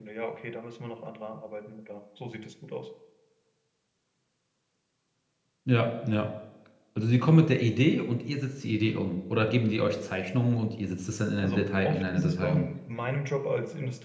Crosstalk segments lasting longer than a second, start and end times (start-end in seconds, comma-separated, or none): 11.4-12.7